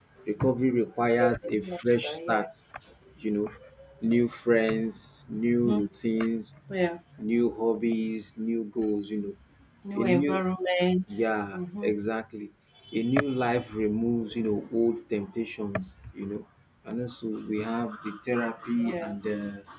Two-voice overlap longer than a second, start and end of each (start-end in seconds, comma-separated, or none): 1.2-2.5